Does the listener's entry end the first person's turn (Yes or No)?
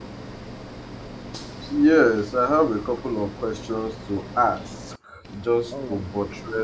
No